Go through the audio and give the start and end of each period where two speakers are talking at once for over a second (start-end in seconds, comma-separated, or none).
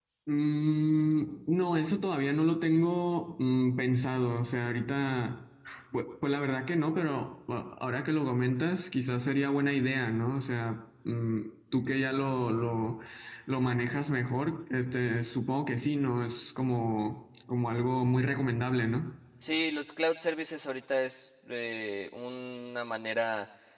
none